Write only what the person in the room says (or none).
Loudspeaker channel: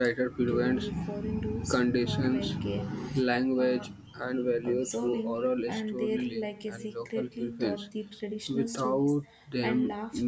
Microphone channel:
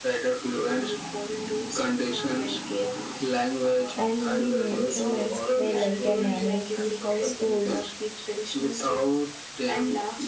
and in the many women's were like a manage the households